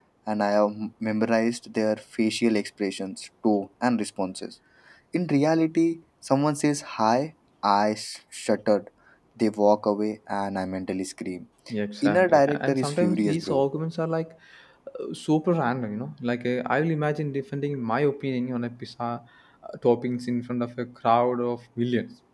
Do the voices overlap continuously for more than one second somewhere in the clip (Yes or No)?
Yes